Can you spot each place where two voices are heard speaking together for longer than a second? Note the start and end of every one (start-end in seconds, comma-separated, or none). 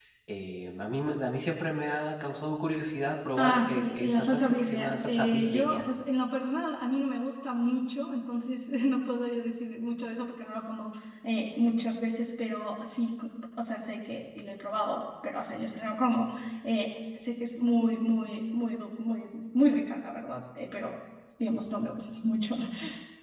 3.4-5.8